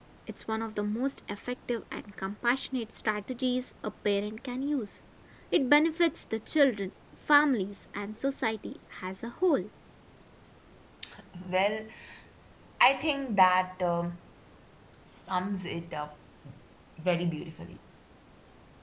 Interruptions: none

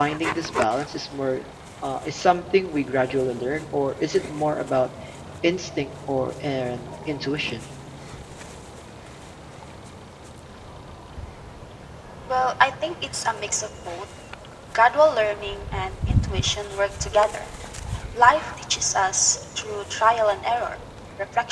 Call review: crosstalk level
none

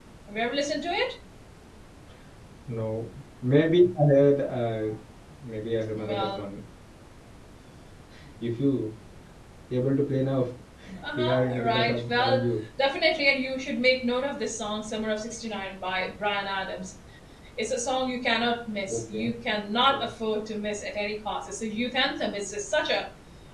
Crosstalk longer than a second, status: present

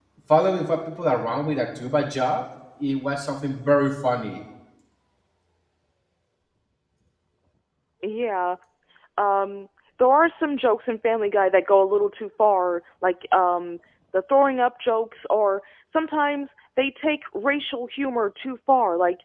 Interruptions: none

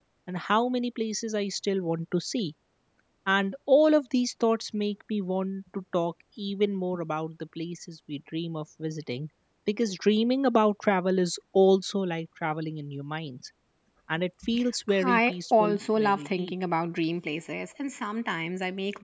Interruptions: present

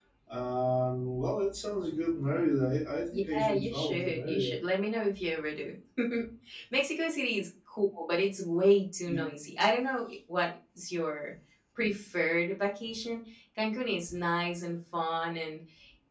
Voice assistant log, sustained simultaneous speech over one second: present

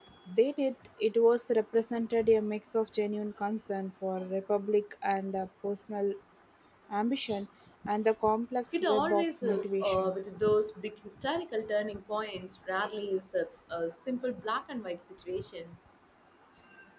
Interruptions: present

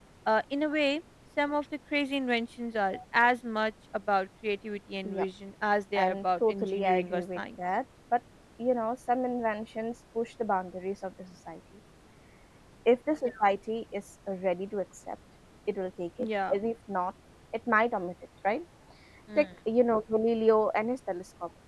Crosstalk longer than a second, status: present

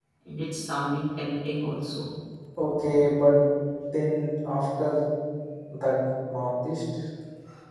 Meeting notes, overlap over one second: none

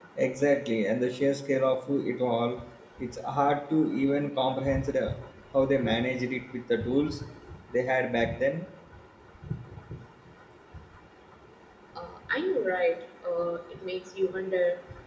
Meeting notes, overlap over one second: none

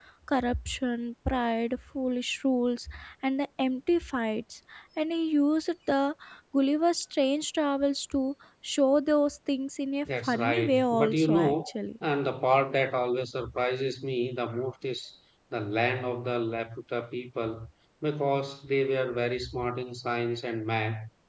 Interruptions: present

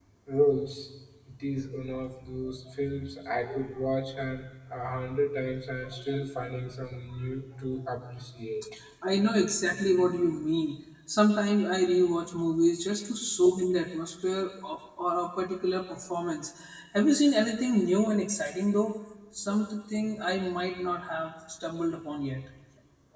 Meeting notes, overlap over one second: none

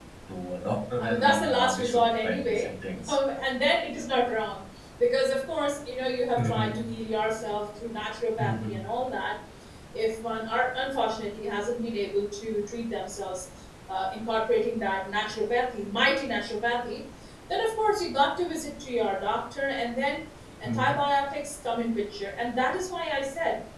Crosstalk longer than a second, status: present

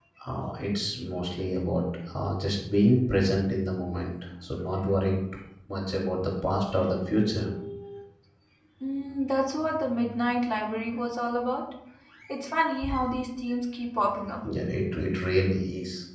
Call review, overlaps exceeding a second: none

